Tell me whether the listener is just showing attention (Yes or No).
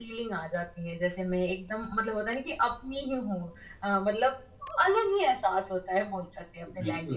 No